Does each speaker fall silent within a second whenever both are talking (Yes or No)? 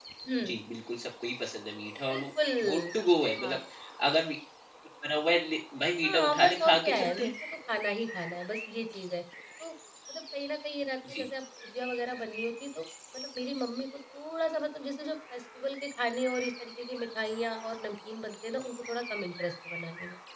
No